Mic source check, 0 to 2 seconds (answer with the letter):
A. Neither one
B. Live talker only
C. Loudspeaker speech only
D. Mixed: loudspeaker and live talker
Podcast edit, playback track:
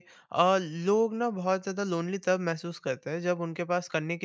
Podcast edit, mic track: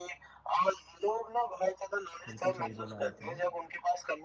C